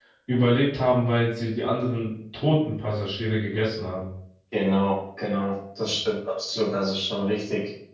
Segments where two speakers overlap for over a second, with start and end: none

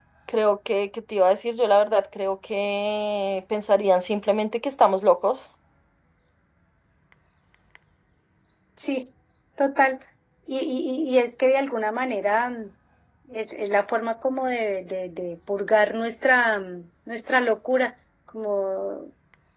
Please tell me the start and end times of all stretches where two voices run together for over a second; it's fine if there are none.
none

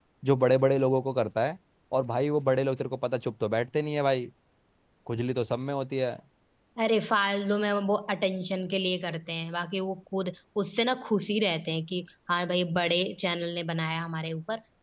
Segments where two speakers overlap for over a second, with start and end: none

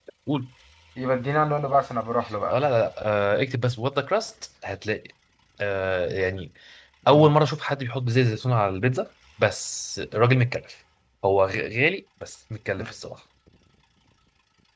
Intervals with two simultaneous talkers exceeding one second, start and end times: none

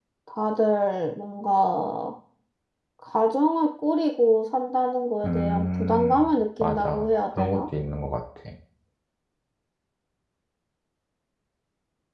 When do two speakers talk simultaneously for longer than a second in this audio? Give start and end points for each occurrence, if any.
5.2-7.7

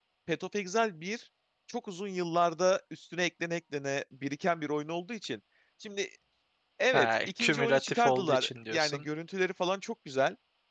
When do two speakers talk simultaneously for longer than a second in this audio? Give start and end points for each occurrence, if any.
6.9-9.0

